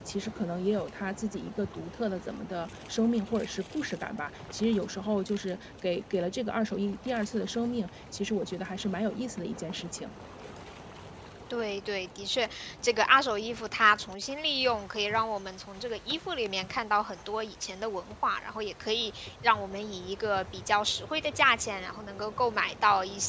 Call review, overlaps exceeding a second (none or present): none